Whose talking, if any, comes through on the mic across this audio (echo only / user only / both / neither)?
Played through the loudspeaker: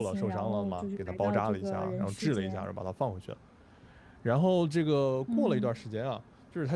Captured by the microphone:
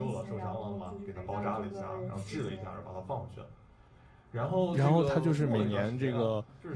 both